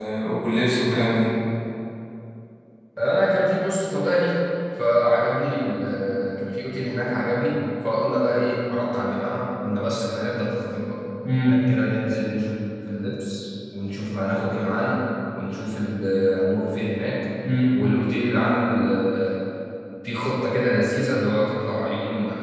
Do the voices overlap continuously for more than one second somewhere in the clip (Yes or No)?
No